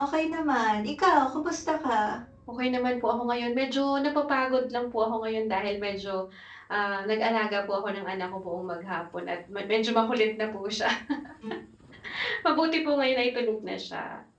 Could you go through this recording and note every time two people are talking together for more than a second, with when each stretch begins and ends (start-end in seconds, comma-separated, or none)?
none